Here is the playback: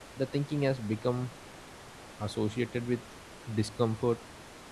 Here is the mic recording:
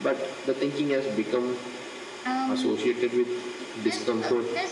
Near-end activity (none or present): present